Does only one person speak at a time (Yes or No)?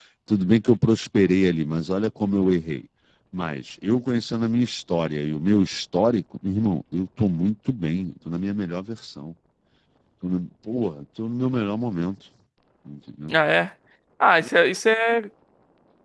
Yes